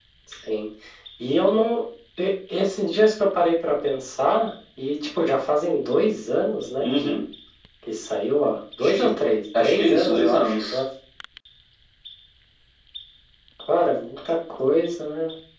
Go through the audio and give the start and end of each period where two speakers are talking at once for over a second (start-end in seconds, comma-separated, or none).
9.6-10.8